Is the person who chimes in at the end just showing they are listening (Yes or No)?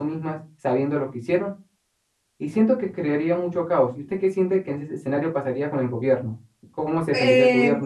No